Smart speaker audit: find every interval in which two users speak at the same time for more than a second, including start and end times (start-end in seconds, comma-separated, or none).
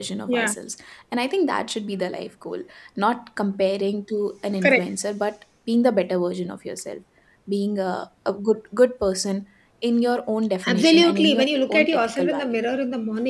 10.7-12.6